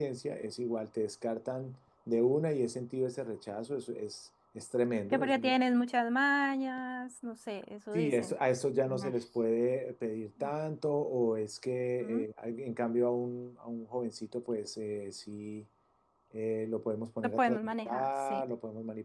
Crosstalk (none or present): present